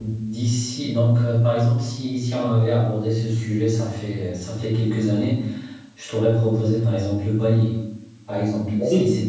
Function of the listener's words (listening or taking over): listening